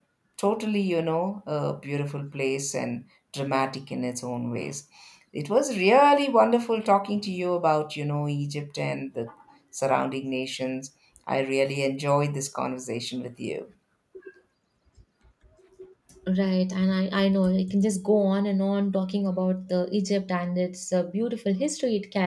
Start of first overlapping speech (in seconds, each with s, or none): none